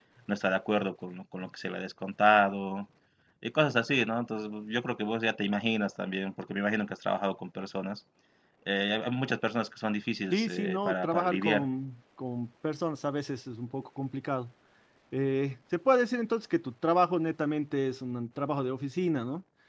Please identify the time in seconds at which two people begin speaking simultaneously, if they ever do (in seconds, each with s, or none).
10.3 s